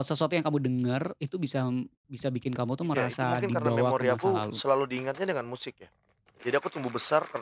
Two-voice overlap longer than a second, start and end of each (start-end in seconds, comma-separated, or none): 2.9-4.6